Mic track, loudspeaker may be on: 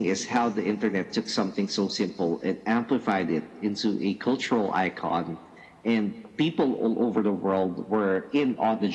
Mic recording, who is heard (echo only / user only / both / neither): echo only